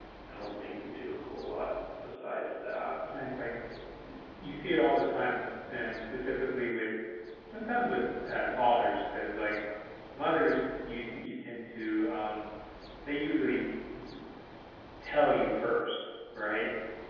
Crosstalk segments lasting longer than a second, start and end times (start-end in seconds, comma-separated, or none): none